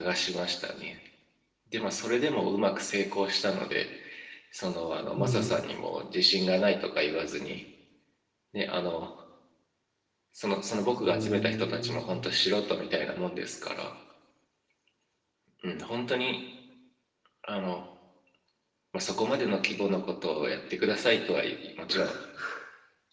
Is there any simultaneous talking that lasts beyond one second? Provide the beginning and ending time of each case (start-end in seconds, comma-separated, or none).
11.0-12.3